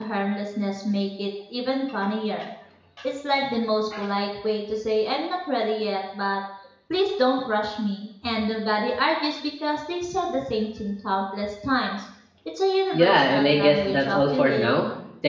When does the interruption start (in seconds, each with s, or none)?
12.9 s